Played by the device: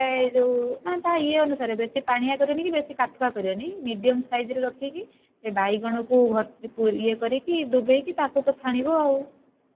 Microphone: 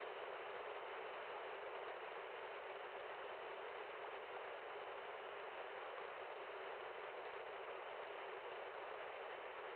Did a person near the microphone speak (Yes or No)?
No